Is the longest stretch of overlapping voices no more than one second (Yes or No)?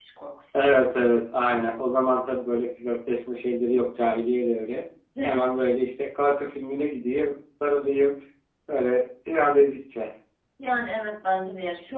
Yes